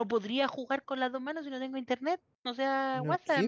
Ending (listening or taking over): taking over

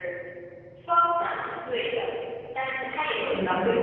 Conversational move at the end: listening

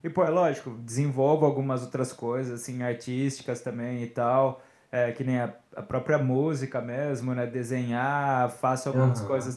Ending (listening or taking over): listening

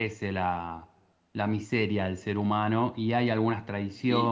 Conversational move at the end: taking over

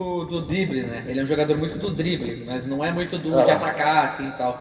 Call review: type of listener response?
listening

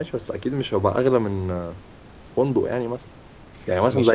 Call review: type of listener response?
taking over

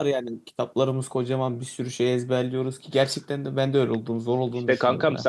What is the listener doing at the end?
taking over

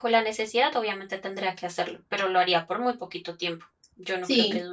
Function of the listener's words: taking over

